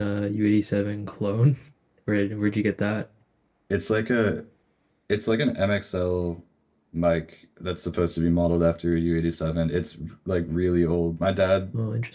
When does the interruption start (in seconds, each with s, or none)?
none